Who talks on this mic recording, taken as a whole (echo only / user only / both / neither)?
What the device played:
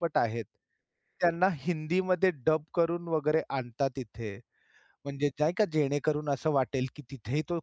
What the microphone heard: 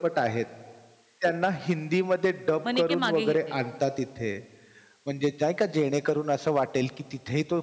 both